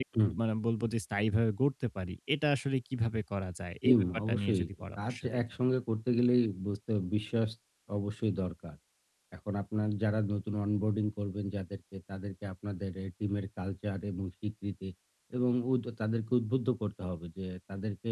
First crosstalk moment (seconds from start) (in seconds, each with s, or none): 3.8 s